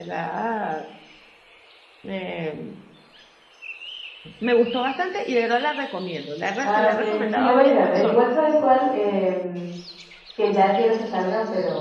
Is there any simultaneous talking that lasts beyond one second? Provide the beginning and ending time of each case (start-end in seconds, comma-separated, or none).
6.6-8.2